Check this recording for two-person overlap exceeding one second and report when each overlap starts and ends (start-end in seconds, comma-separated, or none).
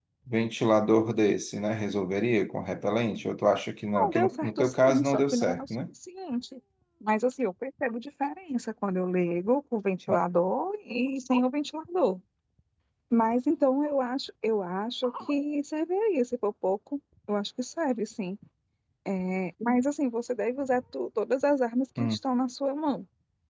4.0-5.8